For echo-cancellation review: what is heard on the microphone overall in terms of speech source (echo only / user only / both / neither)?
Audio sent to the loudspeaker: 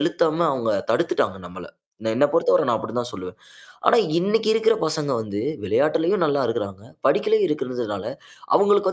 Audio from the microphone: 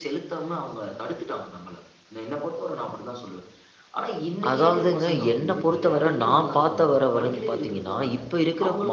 both